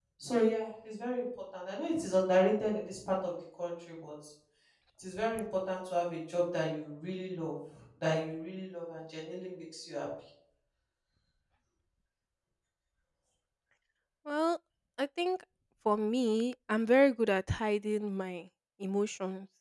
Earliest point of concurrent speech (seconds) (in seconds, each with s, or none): none